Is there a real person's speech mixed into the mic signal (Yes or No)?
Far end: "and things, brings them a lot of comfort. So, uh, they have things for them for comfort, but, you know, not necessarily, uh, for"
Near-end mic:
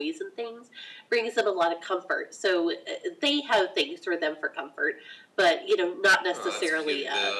Yes